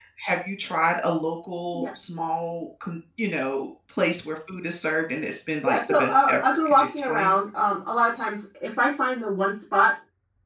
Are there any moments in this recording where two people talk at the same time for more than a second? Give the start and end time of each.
5.7-7.3

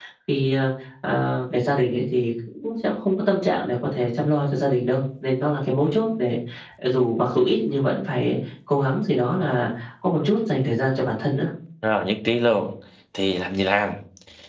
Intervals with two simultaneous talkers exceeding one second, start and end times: none

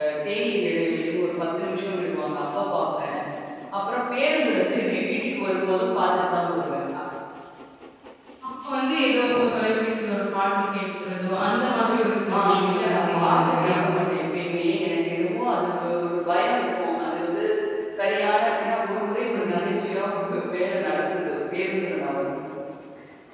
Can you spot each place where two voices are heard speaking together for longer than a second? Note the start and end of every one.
12.3-13.7

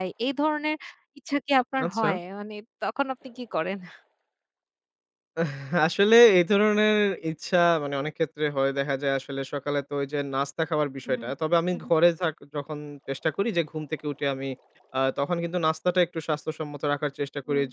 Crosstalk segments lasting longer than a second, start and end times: none

